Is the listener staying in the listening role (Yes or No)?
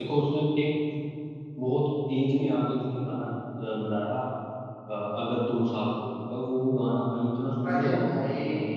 No